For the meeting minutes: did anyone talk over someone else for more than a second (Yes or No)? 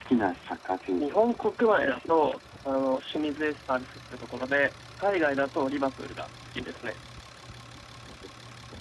Yes